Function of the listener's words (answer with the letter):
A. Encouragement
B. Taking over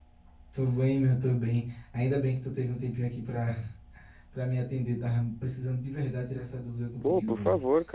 B